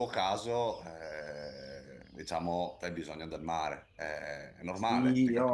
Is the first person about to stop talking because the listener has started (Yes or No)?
Yes